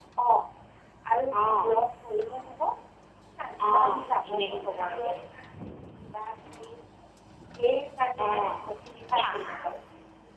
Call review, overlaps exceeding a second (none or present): present